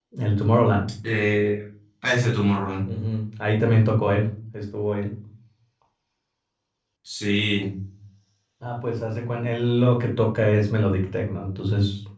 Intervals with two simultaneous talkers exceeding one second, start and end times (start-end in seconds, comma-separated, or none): none